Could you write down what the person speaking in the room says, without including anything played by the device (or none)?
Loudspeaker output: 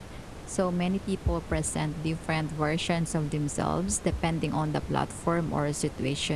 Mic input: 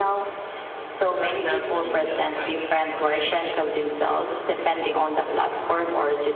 but not unlimited time of- or energy.